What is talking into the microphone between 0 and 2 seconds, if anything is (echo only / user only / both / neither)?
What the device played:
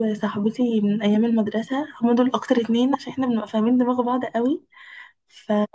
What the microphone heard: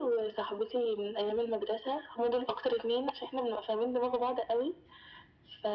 echo only